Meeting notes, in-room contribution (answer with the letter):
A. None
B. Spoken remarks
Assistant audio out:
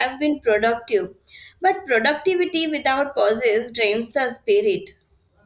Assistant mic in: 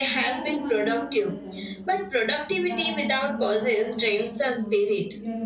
B